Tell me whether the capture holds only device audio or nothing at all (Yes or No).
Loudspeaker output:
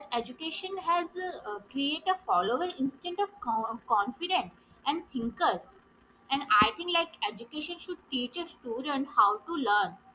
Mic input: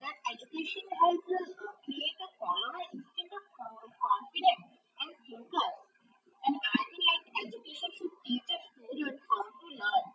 Yes